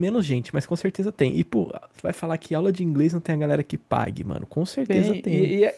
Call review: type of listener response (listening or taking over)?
taking over